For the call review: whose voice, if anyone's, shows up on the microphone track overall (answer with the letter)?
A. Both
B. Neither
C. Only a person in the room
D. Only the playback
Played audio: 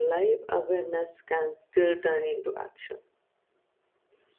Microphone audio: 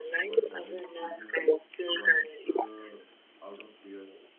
A